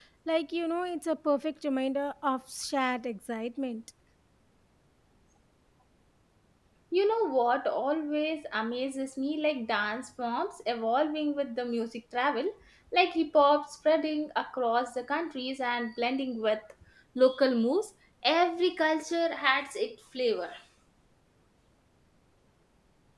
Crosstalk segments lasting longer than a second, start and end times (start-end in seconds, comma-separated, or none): none